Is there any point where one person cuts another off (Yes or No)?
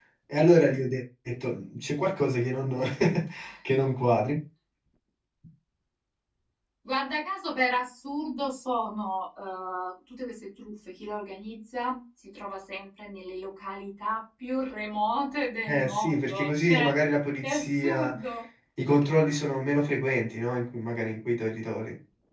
Yes